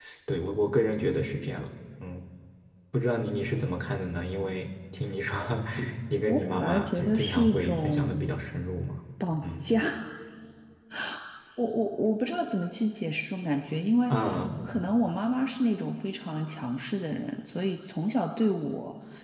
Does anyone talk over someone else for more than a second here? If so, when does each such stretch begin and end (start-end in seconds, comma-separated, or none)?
6.3-8.2